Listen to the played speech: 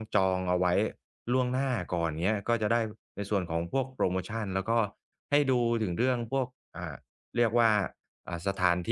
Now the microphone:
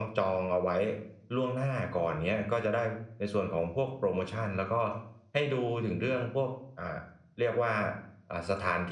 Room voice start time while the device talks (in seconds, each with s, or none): none